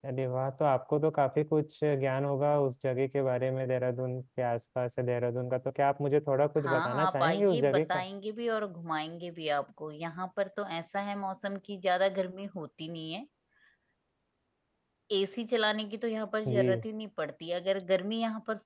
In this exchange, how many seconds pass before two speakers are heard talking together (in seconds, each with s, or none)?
6.6 s